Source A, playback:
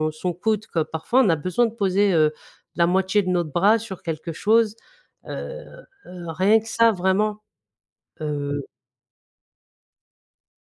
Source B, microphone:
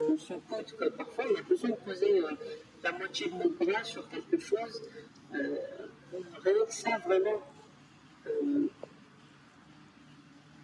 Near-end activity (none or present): none